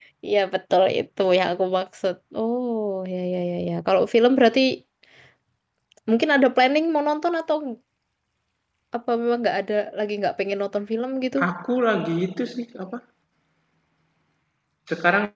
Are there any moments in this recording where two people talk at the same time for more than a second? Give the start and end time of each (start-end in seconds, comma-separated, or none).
none